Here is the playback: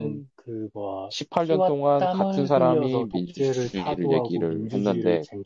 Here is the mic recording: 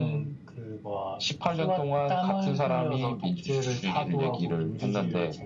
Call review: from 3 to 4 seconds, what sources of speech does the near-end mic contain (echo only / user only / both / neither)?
echo only